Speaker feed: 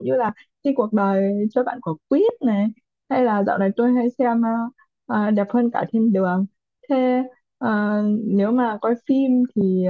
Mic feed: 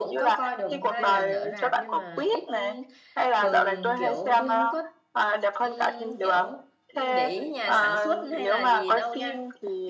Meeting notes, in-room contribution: present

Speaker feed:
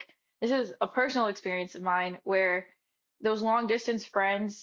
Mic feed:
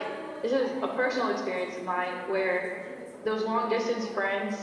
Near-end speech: present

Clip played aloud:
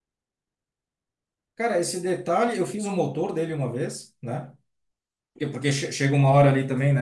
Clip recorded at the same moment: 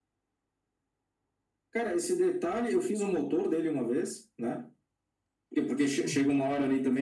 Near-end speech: present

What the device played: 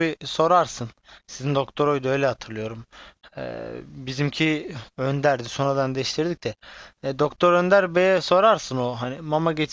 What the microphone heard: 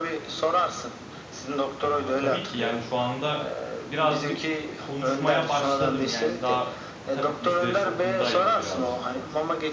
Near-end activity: present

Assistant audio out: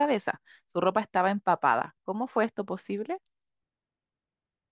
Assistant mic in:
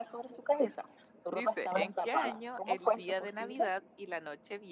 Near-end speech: present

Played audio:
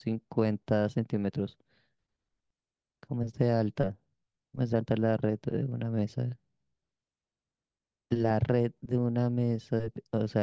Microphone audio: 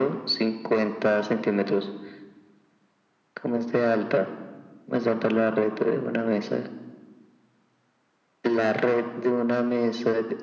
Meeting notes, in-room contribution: none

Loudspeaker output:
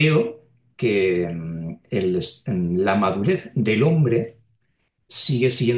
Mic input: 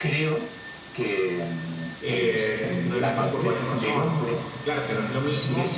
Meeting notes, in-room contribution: present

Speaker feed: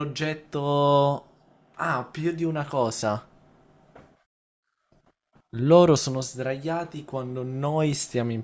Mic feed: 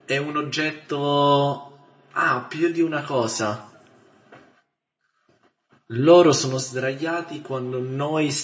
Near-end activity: none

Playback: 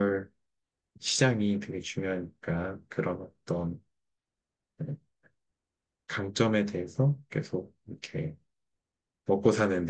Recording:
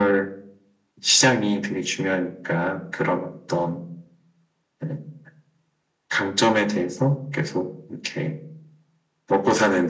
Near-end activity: none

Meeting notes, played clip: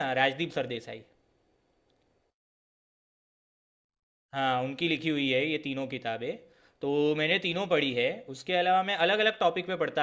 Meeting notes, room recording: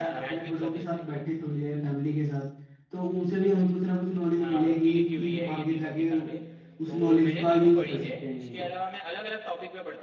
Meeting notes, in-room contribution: present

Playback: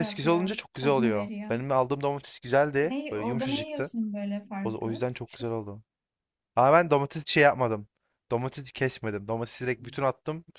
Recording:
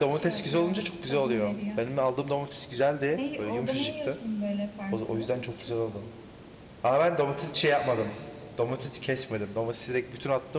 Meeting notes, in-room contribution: none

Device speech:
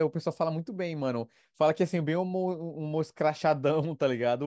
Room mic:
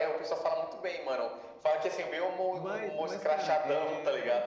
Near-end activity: present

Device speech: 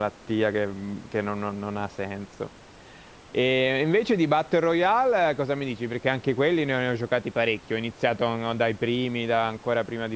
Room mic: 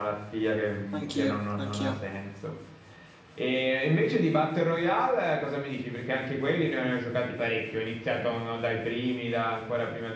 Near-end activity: present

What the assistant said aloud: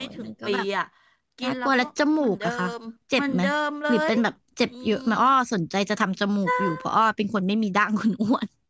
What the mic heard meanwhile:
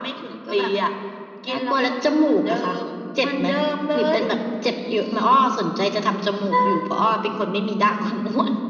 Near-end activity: none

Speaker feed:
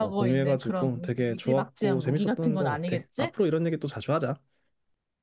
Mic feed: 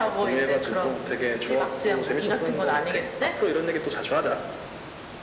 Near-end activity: none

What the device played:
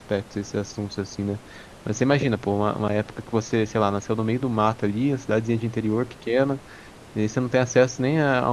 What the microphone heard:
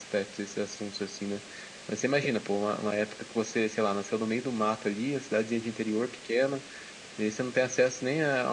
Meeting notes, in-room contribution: none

